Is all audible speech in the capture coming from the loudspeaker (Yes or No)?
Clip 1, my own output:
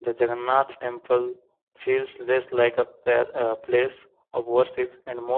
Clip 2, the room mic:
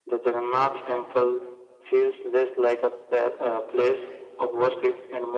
Yes